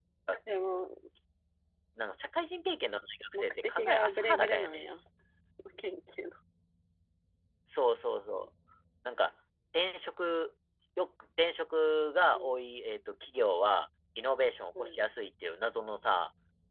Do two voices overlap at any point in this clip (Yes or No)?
Yes